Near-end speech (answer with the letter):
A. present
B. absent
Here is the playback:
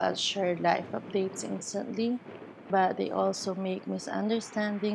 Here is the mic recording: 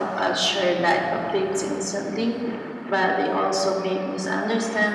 B